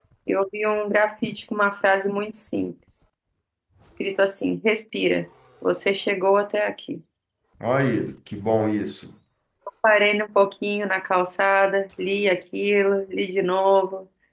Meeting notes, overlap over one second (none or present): none